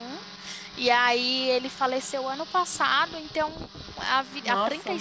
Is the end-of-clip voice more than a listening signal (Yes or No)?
No